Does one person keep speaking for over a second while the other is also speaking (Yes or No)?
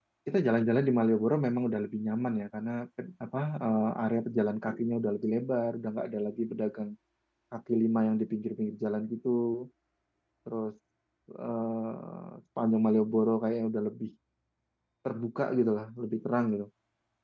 No